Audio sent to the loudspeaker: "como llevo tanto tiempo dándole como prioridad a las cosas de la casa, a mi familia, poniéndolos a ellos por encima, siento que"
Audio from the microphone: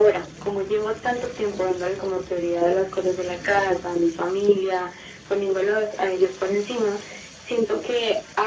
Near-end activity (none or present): none